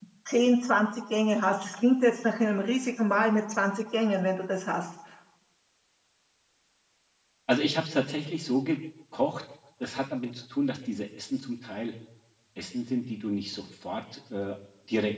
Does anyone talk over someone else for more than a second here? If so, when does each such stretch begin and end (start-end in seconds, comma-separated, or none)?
none